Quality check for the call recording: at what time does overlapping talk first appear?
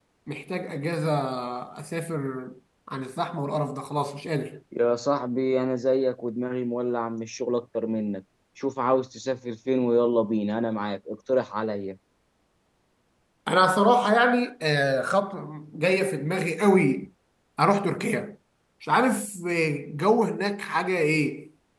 none

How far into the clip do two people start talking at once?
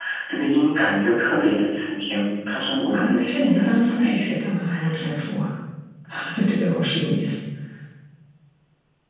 2.9 s

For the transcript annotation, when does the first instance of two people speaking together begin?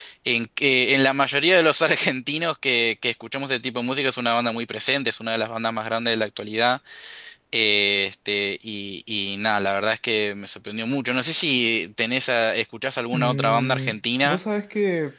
13.1 s

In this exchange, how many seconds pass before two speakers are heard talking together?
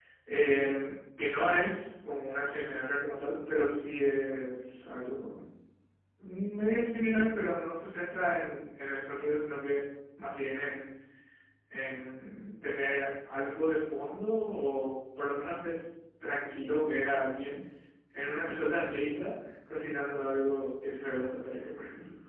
none

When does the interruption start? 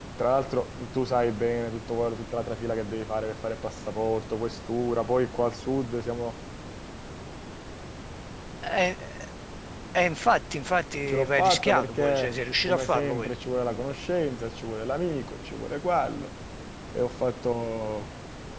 11.1 s

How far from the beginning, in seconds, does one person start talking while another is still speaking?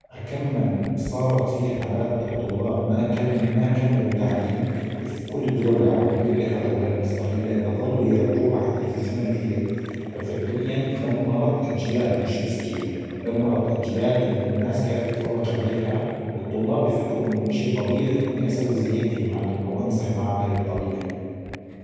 none

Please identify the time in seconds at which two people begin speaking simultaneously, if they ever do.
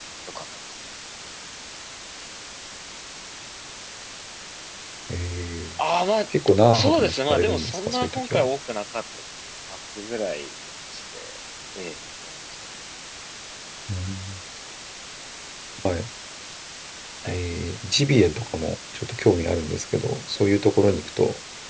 6.7 s

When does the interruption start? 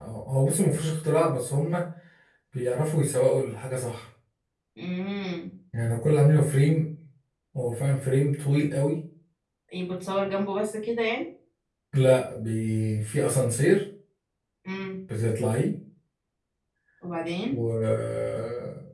none

